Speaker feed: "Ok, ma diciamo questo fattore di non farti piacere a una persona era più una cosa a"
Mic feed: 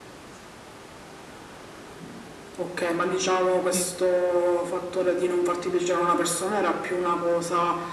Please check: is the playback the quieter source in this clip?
No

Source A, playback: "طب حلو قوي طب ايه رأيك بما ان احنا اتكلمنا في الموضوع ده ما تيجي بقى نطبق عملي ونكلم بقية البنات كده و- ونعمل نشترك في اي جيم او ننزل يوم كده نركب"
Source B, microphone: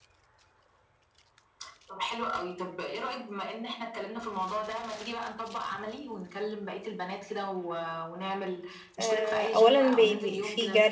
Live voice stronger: Yes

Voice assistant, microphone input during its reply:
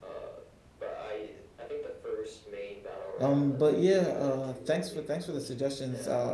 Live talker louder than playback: Yes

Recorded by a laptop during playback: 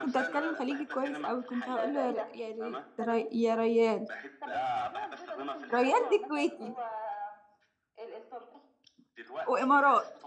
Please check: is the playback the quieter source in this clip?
Yes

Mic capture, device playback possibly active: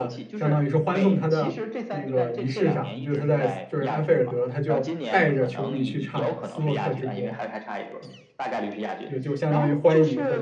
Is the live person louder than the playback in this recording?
Yes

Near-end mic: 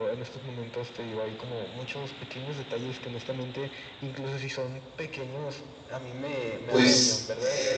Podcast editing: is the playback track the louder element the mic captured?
No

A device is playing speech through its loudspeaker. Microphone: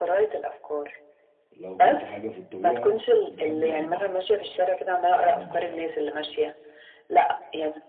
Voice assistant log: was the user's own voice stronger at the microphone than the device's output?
No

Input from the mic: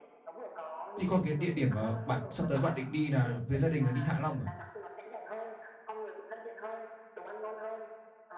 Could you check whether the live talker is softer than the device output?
No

